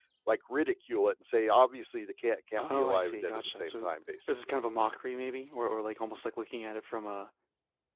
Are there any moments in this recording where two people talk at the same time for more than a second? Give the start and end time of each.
2.6-3.9

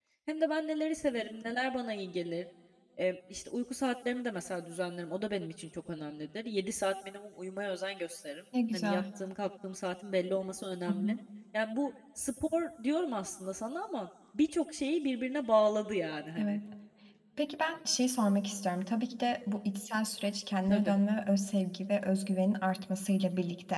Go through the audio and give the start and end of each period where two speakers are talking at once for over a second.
none

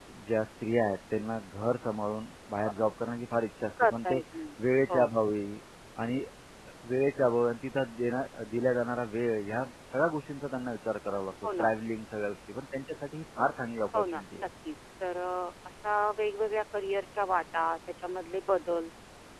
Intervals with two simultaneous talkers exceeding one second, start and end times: none

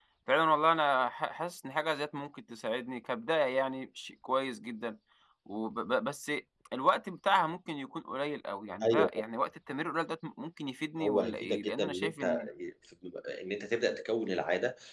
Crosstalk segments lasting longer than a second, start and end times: 11.0-12.4

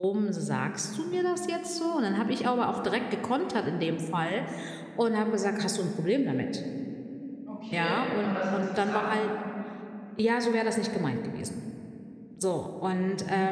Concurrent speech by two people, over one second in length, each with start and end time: 7.7-9.1

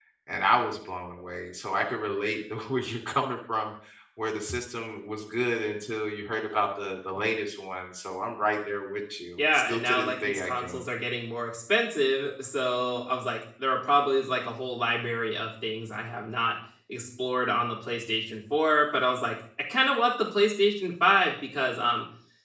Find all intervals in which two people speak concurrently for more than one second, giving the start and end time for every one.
9.5-10.8

